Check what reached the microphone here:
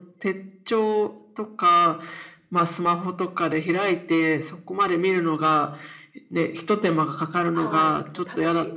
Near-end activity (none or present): present